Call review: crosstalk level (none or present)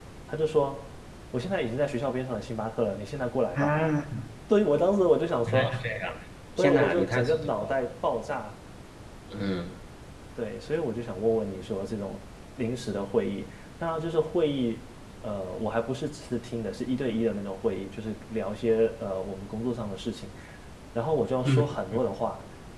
present